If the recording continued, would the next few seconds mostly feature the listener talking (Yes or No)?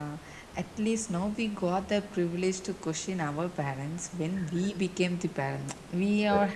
No